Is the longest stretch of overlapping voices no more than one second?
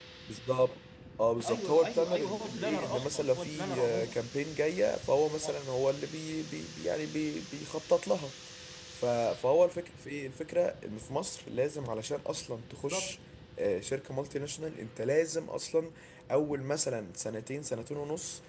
No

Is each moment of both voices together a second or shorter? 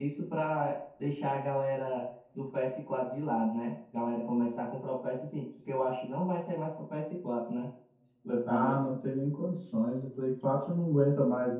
Yes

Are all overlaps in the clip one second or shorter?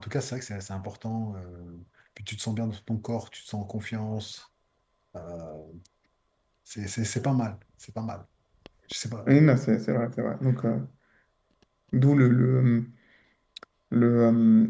Yes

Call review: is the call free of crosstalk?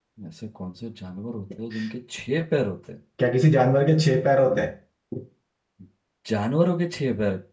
Yes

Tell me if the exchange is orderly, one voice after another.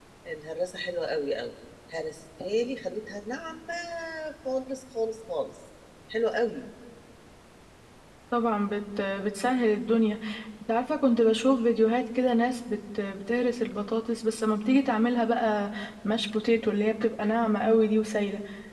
Yes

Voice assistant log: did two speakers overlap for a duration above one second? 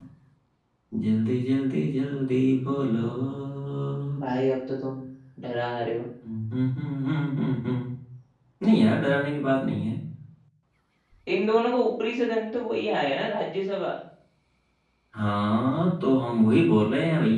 No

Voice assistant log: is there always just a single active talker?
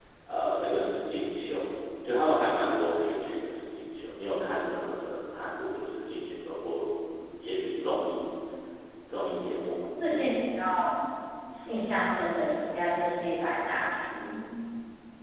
Yes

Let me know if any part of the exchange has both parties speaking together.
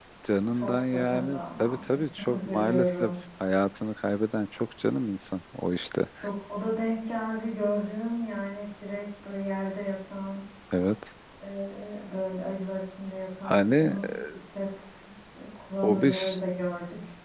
Yes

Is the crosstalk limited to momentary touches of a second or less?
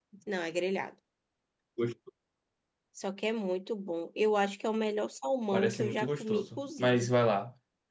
No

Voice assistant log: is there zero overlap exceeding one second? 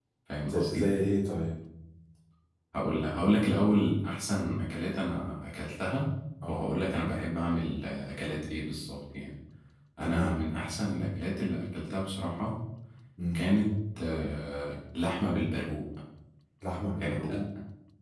Yes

